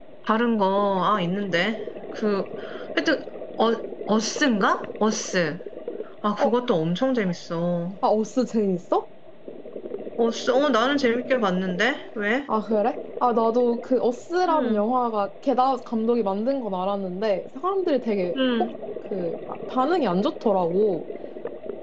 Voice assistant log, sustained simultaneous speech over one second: none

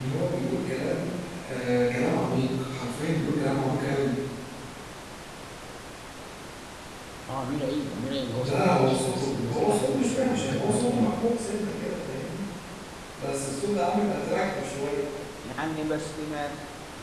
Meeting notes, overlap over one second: present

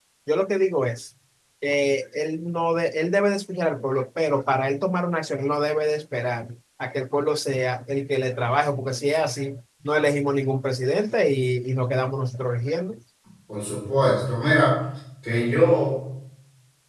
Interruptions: none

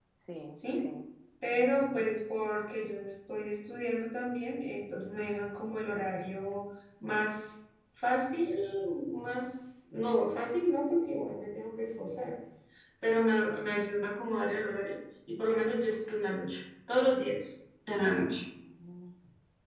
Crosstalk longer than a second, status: none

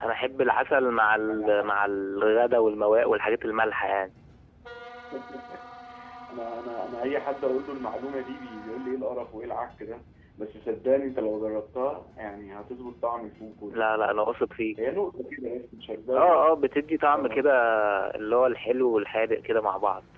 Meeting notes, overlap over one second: none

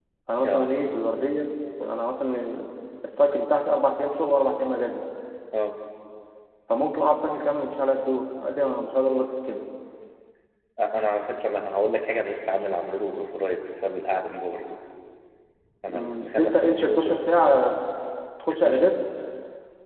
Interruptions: present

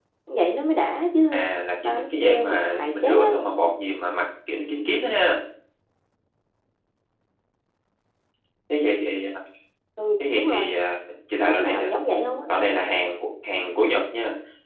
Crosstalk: present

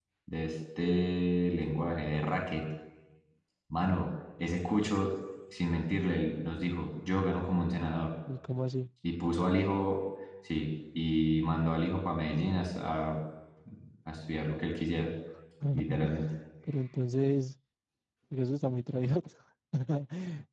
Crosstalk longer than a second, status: none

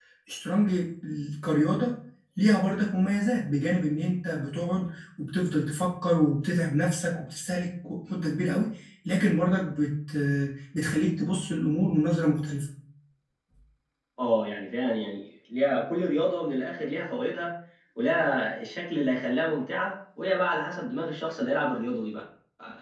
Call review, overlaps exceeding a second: none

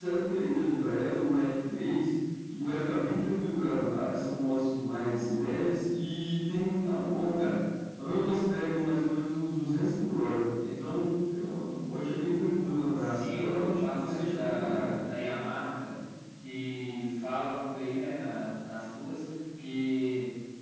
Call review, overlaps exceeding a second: present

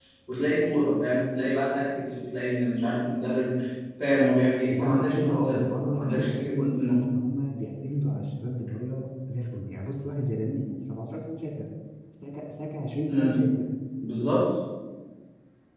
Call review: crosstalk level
present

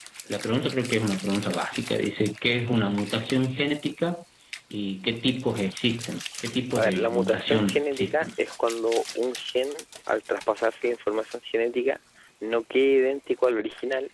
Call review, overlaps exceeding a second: present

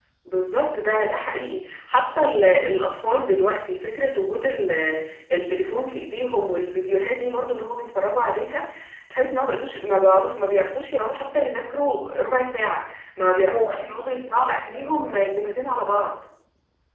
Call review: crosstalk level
present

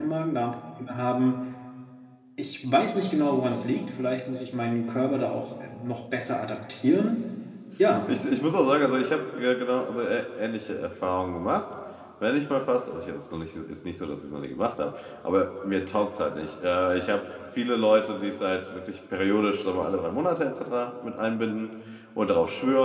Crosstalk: none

